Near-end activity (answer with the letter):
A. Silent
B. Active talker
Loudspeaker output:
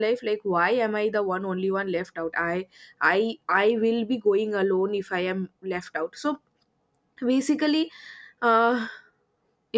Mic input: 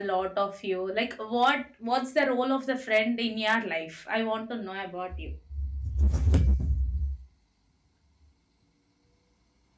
B